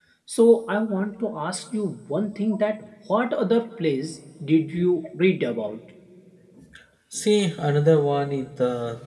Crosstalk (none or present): none